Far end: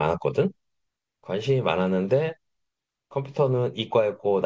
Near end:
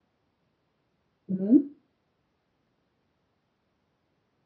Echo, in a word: none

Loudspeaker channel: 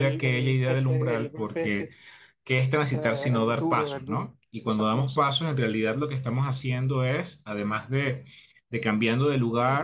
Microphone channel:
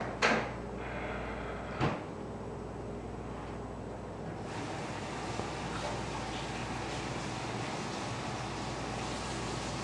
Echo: none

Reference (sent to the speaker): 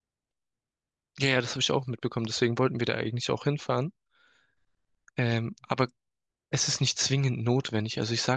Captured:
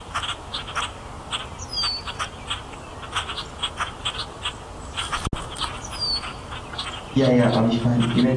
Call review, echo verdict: none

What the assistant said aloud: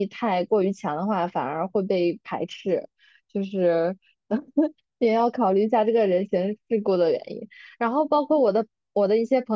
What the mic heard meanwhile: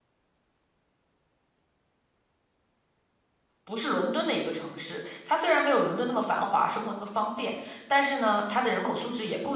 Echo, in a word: none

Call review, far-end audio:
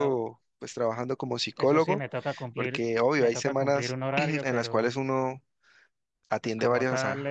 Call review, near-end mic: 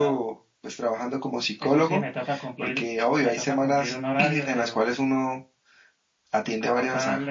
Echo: present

